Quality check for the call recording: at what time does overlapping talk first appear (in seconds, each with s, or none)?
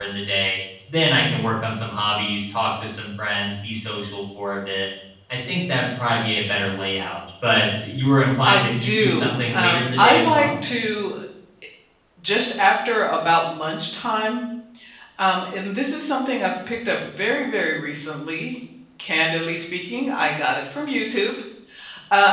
8.4 s